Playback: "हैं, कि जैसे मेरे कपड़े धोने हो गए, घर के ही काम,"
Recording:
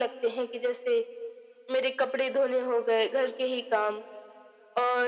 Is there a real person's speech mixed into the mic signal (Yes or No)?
No